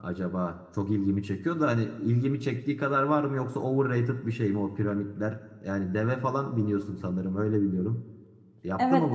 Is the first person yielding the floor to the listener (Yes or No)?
Yes